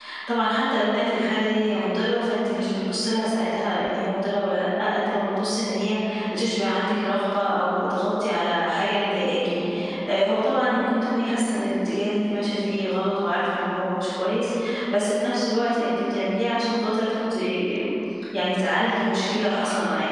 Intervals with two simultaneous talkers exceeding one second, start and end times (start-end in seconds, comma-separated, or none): none